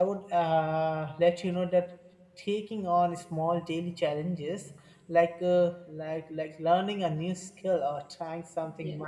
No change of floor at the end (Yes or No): Yes